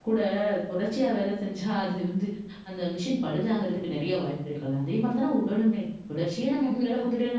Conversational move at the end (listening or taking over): listening